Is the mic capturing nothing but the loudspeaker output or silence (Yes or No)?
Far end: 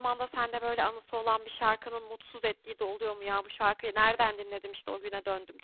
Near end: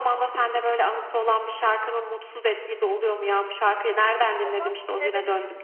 No